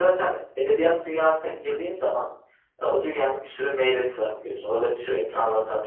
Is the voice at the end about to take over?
No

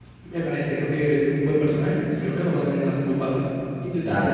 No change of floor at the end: No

